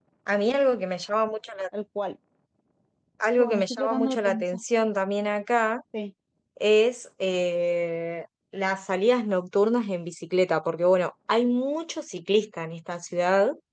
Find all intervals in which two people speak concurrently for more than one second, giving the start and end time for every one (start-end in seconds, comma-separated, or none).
3.4-4.6